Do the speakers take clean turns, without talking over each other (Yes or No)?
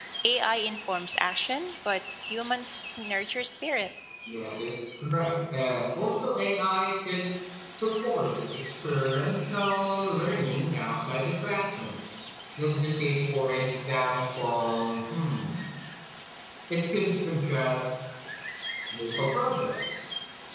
Yes